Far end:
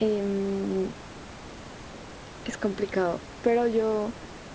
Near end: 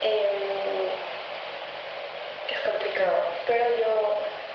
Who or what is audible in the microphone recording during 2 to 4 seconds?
echo only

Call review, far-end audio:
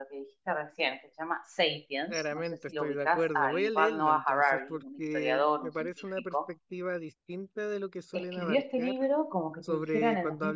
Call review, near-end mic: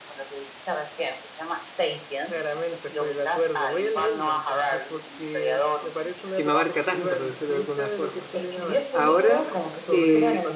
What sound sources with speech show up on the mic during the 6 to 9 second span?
both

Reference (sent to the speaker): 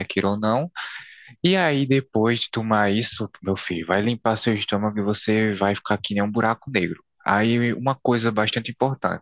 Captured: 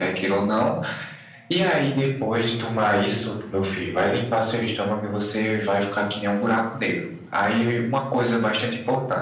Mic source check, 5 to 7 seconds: echo only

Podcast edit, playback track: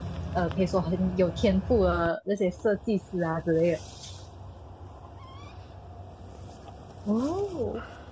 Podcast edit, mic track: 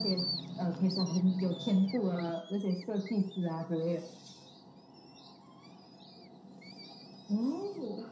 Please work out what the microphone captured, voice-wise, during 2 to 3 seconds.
echo only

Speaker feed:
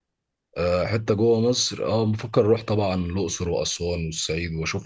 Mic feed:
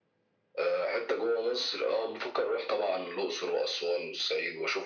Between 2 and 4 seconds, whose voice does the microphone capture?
echo only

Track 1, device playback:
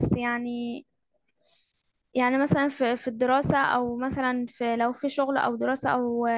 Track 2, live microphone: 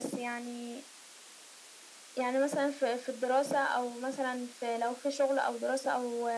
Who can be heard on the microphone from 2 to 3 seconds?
echo only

